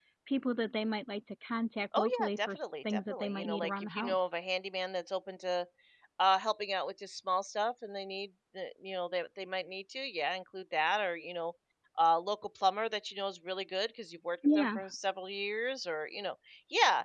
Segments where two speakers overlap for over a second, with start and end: 2.0-4.2

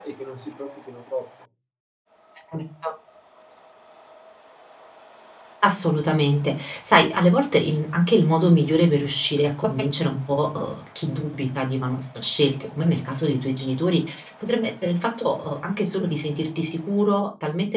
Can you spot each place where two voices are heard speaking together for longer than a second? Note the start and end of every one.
none

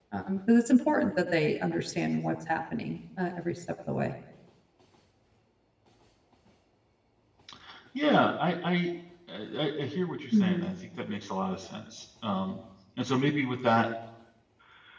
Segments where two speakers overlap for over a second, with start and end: none

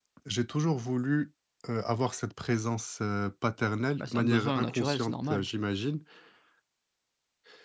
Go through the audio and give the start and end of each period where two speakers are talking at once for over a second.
4.0-5.4

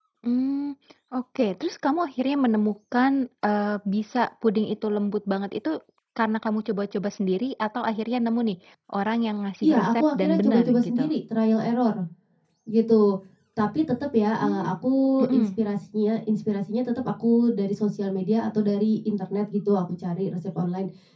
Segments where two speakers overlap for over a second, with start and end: 9.6-11.1

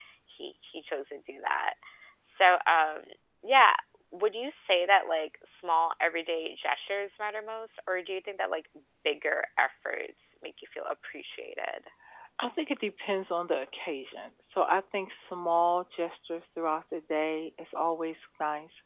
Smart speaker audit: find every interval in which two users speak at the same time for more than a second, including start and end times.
none

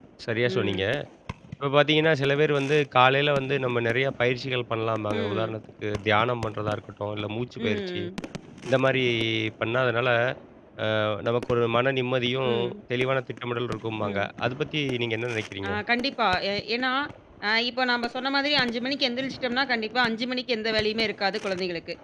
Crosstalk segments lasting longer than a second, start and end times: none

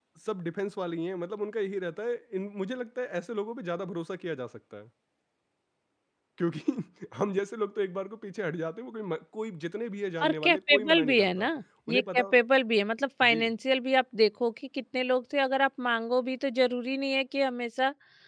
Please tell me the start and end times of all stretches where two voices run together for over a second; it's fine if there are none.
10.2-11.5

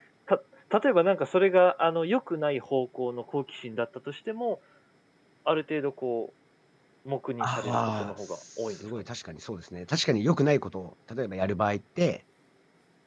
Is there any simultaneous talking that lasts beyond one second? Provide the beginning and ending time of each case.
7.4-8.8

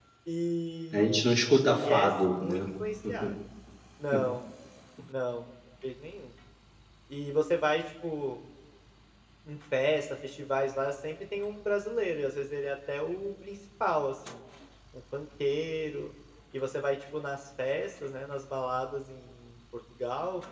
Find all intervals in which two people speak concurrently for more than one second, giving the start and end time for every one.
0.9-2.6

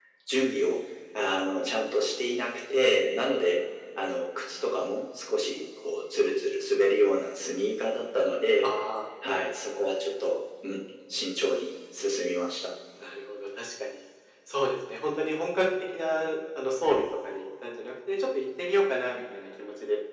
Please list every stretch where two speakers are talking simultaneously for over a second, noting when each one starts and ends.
none

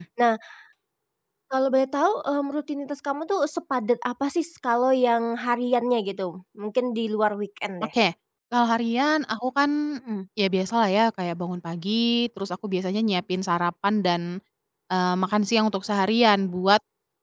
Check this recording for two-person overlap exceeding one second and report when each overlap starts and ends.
none

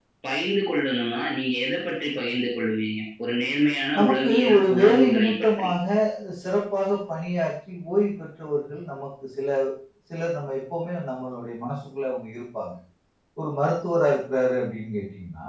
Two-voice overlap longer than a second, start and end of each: 4.0-5.7

